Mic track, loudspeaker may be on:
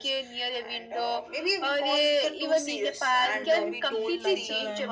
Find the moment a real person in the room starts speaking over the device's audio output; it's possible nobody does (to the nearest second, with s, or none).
3 s